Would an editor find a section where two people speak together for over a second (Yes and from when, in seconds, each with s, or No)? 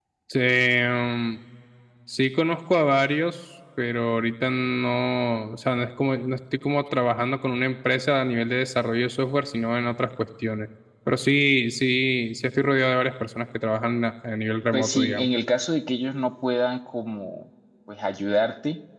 No